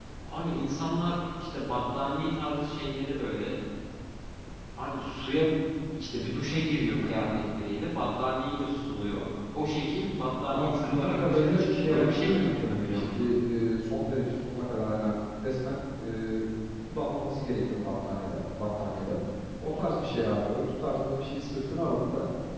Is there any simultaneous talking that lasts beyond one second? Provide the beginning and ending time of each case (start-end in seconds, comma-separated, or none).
10.5-13.3